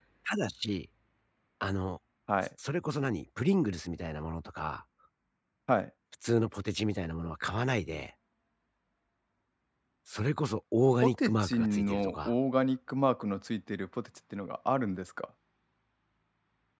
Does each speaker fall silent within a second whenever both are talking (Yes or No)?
No